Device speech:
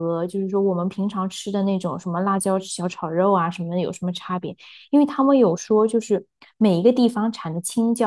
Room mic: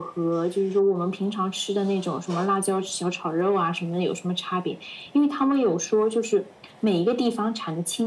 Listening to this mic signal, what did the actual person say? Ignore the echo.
none

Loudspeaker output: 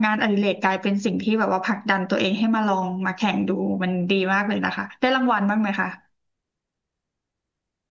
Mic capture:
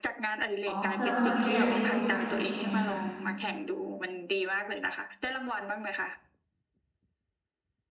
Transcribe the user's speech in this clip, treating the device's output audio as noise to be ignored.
อ๋อแสดงว่าตอนนี้ก็ยังเล่นโยคะอยู่ใช่ไหมคะ

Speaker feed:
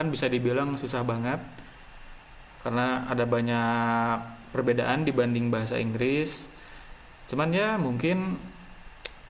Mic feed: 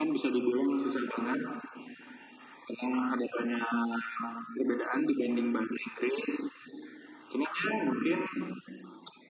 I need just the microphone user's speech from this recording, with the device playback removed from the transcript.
none

